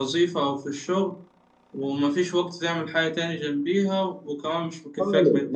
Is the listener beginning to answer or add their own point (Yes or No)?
Yes